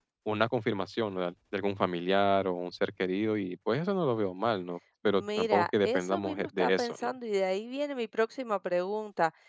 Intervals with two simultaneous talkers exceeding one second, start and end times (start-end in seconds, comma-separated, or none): 5.1-7.1